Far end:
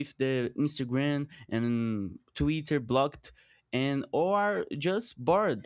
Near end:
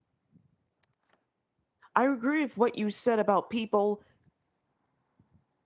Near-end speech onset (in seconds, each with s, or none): 1.9 s